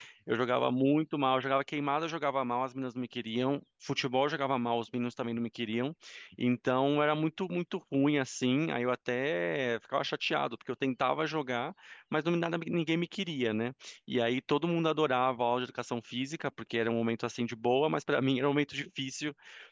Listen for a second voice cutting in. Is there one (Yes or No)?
No